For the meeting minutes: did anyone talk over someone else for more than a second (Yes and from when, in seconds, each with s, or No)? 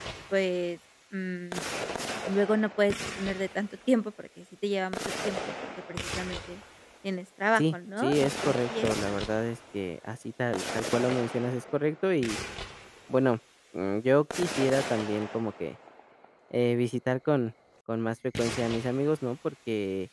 Yes, from 7.6 s